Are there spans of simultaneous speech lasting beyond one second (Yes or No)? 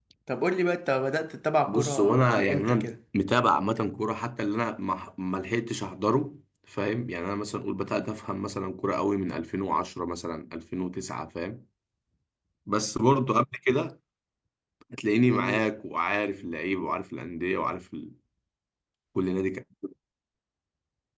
Yes